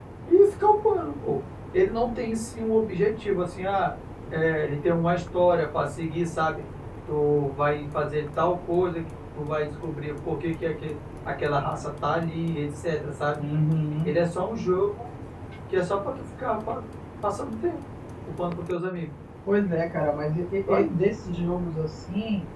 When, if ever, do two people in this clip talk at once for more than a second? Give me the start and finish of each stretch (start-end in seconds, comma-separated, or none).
none